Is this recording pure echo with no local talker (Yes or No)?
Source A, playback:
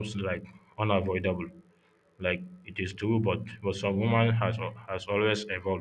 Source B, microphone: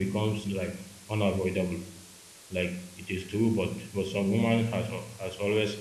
Yes